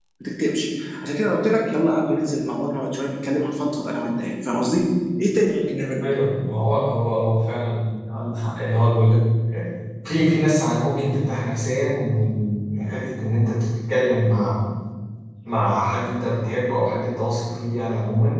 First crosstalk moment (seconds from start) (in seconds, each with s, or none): none